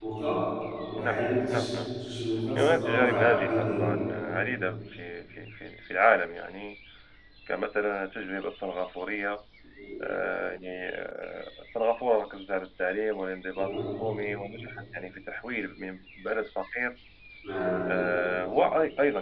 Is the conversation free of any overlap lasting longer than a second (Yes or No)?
No